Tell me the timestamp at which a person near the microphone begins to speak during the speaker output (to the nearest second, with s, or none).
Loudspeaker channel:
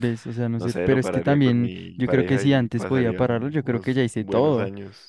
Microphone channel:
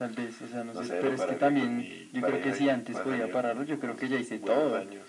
none